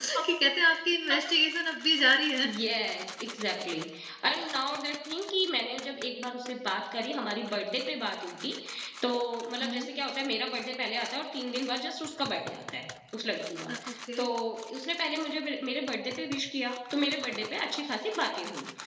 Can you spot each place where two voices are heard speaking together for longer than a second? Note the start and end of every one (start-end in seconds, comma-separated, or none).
none